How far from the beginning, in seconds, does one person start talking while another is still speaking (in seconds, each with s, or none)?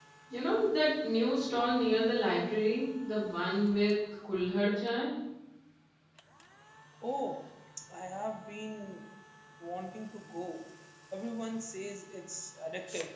none